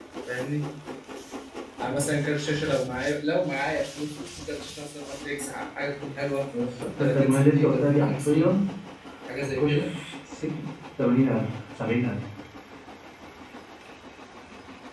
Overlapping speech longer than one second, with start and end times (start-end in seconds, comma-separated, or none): 7.0-8.6